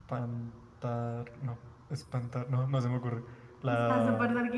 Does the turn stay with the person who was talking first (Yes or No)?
No